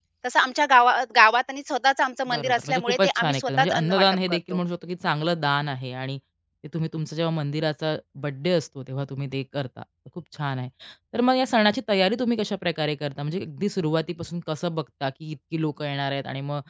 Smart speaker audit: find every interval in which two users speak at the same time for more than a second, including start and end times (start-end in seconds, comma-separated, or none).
2.3-4.6